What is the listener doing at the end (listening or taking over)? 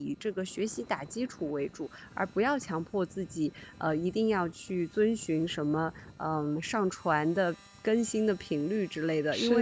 listening